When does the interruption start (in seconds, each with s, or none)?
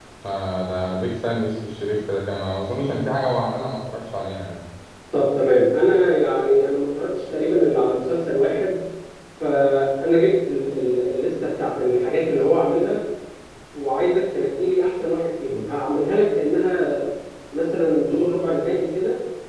none